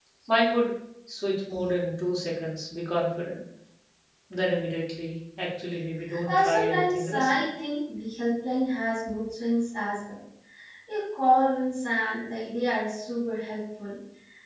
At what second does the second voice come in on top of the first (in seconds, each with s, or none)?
6.0 s